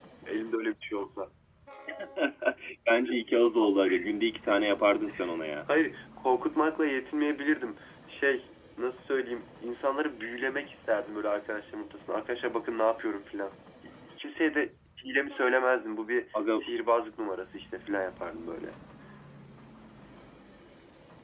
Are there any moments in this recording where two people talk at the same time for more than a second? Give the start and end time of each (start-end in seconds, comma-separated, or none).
none